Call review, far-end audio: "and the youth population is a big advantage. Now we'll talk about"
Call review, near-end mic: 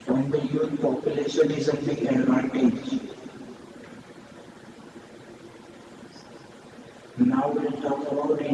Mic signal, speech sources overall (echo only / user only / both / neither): echo only